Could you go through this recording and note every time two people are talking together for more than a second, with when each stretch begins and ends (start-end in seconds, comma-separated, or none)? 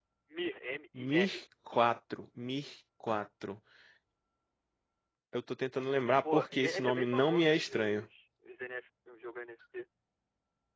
6.3-8.1